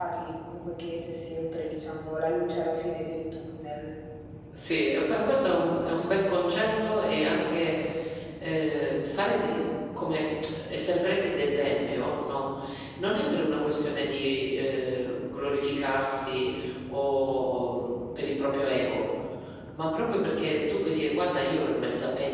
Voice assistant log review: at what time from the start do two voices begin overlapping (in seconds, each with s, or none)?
none